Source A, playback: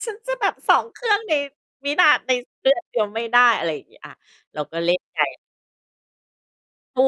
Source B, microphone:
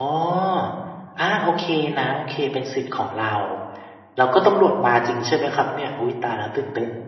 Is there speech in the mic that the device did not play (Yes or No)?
Yes